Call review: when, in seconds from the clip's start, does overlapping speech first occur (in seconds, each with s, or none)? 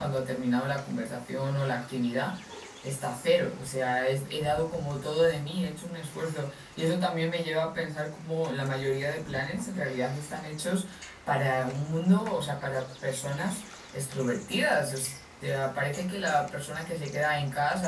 none